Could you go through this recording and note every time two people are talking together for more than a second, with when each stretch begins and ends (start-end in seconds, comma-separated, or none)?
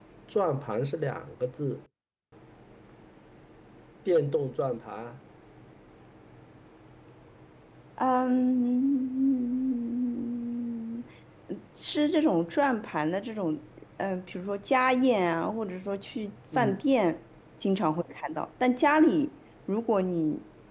none